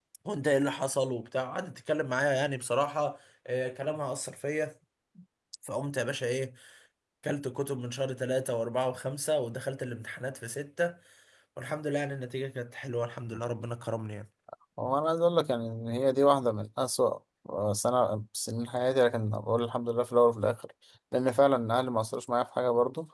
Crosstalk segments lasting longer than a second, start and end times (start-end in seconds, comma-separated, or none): none